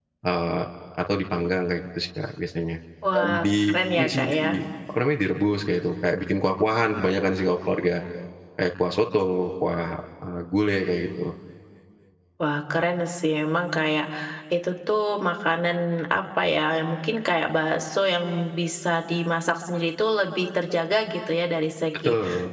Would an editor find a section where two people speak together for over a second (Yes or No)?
Yes